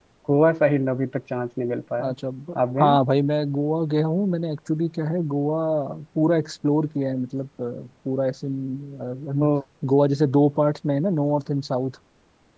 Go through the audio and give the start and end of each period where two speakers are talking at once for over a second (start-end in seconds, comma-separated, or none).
none